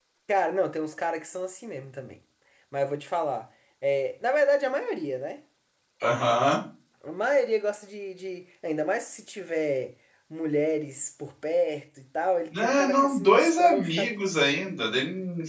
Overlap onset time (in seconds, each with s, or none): 12.5 s